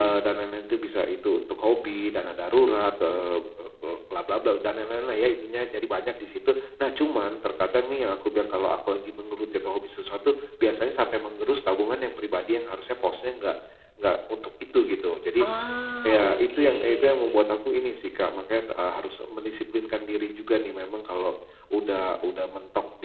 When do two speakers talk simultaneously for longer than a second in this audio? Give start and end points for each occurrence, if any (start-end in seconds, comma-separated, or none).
16.0-17.5